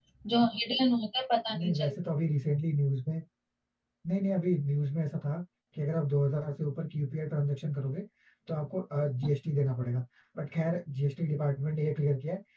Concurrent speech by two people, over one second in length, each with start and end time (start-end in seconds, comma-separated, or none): none